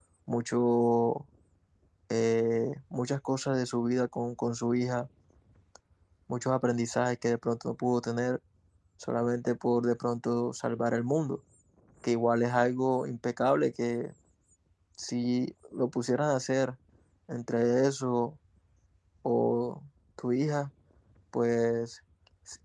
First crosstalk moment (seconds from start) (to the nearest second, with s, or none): none